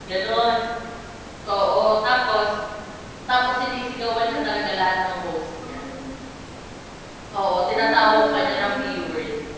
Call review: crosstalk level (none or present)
present